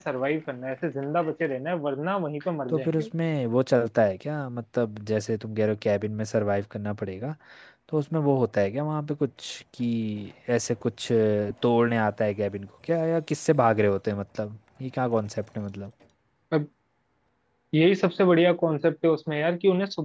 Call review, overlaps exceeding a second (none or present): none